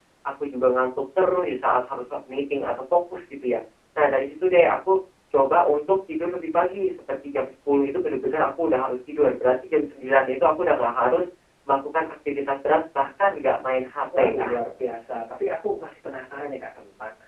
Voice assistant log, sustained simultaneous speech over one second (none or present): none